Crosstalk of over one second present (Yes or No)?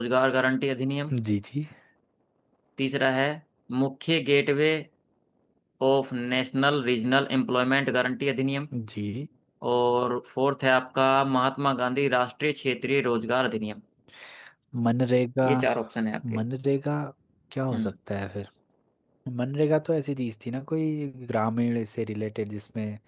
No